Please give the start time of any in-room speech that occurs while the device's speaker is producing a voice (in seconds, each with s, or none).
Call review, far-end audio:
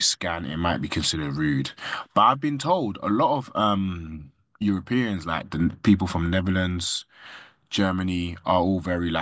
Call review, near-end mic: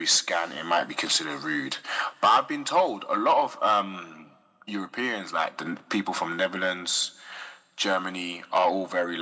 none